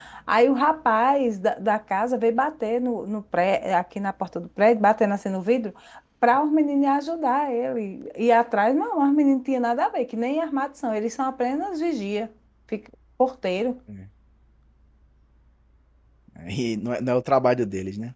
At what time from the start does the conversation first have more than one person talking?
none

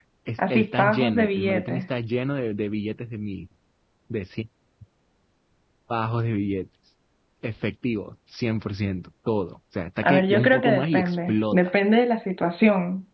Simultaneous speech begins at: 0.5 s

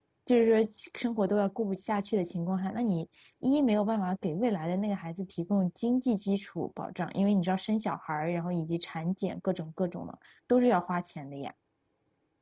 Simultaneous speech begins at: none

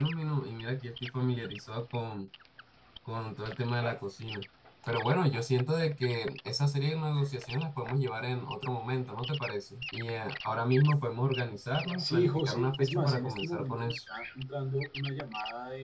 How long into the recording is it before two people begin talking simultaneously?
12.0 s

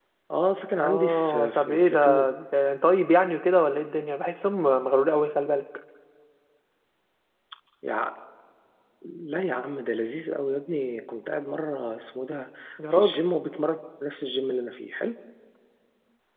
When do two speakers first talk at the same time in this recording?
0.8 s

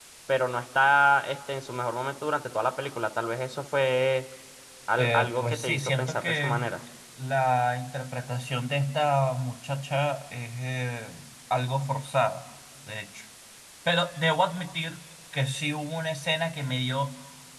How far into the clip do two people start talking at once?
5.0 s

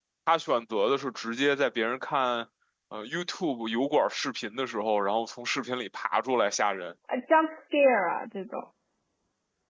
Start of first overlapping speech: none

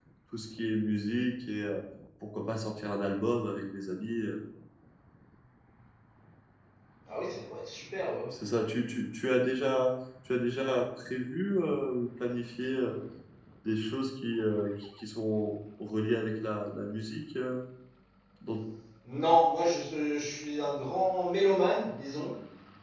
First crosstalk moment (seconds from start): none

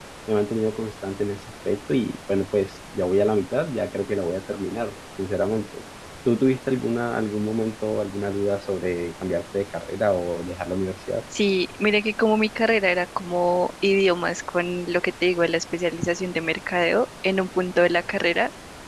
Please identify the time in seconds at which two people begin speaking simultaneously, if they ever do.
none

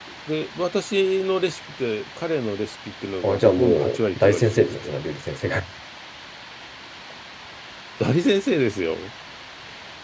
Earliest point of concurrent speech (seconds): 3.2 s

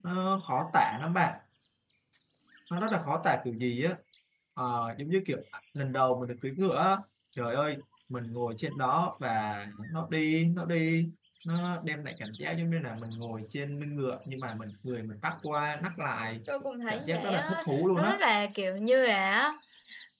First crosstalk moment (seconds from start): 16.9 s

